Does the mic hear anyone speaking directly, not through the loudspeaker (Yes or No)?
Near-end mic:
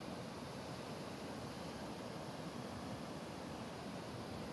No